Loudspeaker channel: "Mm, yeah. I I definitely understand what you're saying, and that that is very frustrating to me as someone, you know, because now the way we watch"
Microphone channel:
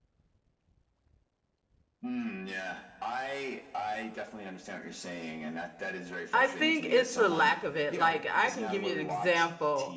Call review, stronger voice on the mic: user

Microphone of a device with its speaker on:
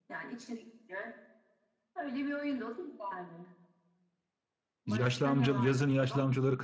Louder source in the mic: user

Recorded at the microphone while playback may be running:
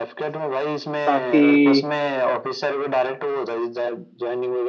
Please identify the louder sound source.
user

